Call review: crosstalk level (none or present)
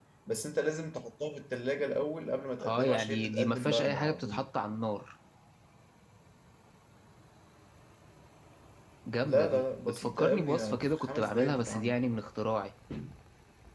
present